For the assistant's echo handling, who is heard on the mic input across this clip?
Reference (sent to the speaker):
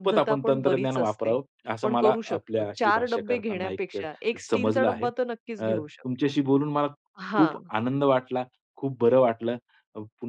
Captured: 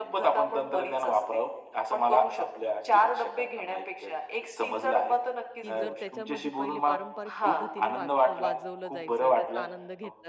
both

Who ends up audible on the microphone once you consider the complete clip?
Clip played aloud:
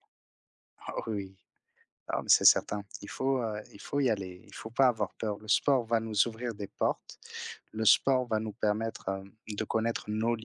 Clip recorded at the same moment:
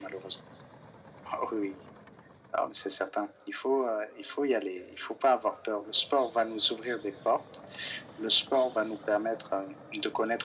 echo only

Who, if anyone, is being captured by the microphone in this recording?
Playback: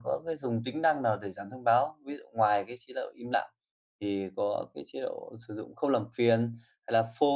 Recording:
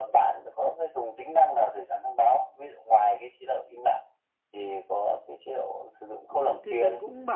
both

